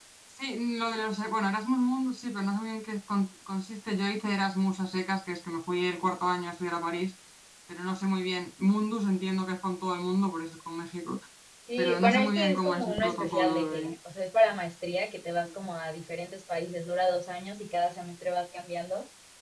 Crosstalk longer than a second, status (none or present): present